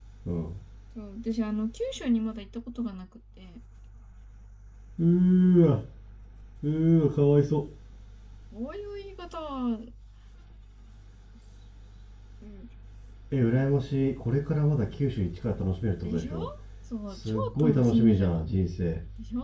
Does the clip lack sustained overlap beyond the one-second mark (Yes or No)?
No